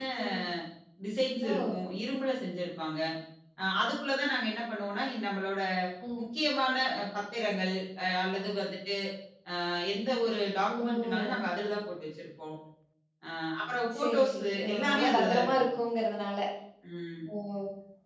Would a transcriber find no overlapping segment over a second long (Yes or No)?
No